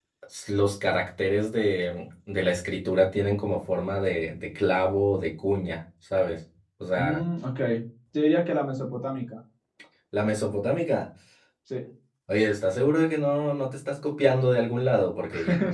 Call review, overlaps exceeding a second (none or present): none